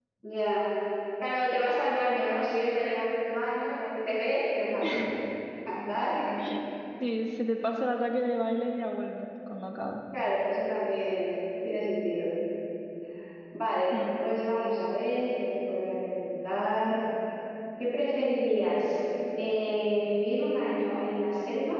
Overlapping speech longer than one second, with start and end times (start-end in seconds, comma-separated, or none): none